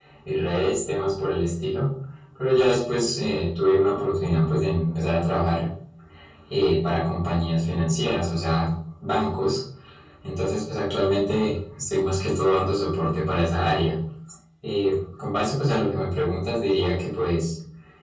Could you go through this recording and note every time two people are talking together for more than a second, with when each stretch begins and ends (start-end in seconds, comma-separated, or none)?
none